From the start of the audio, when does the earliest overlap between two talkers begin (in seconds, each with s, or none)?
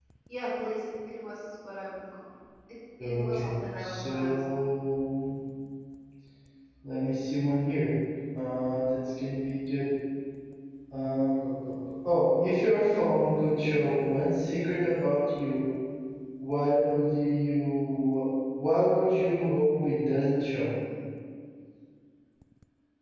3.0 s